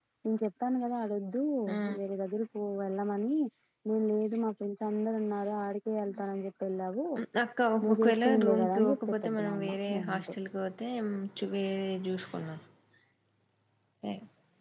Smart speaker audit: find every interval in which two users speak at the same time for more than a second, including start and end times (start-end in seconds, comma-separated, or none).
8.0-10.3